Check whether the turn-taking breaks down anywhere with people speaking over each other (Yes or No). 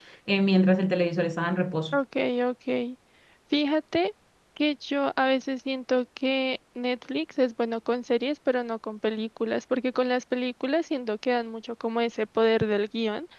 No